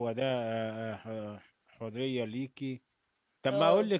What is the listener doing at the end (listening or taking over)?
listening